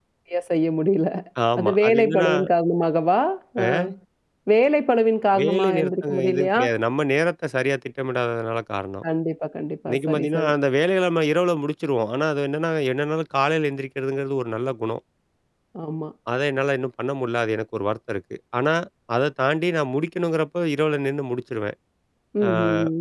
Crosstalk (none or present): present